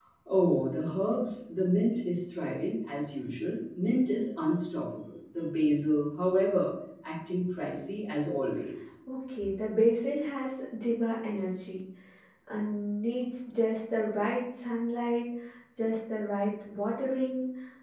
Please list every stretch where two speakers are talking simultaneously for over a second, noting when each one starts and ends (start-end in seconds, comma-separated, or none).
none